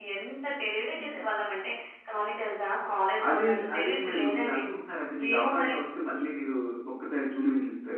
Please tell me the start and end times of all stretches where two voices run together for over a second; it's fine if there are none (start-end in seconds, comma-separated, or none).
3.3-4.6